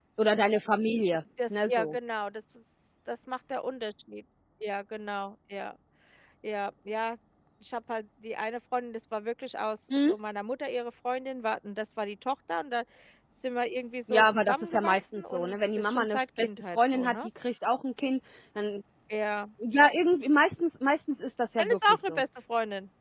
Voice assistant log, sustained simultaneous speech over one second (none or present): present